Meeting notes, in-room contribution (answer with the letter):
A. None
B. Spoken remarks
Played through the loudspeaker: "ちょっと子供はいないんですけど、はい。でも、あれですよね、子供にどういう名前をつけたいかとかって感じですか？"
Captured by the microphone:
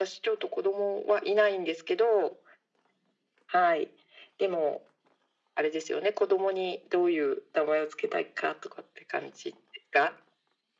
A